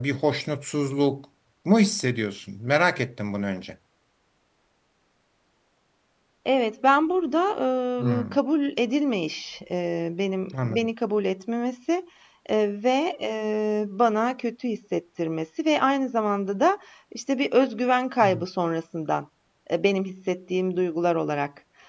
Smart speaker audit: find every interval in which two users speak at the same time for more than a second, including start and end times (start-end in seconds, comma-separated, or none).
none